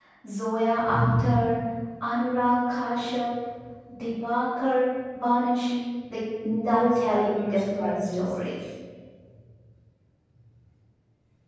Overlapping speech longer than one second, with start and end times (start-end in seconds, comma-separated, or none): 6.6-8.3